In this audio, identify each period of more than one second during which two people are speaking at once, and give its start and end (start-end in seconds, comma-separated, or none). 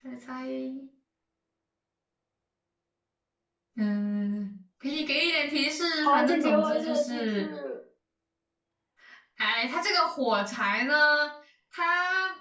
6.0-7.5